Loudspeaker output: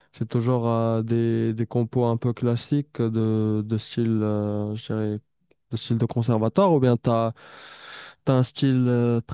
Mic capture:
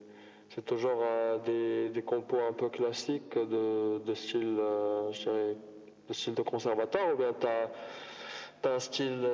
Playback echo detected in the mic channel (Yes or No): Yes